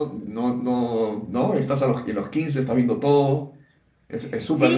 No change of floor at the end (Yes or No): No